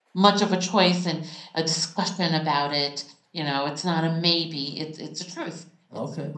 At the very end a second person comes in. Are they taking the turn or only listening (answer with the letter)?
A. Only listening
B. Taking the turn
A